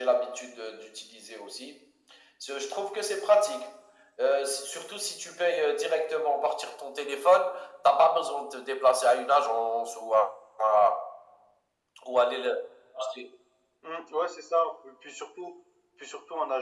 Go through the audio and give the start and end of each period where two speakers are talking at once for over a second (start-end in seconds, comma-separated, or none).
none